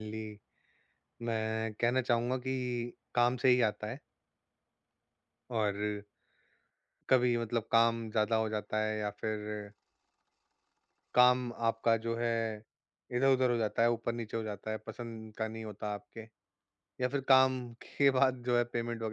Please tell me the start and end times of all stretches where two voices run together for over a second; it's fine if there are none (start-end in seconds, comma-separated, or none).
none